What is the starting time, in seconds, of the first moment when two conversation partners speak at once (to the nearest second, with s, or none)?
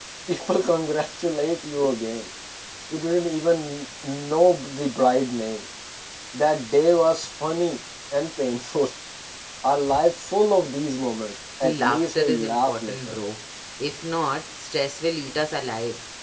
12 s